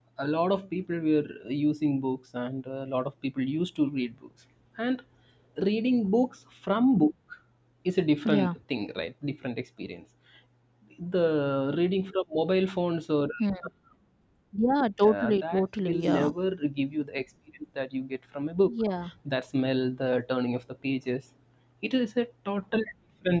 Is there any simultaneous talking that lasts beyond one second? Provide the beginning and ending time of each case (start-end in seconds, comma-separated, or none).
15.0-16.3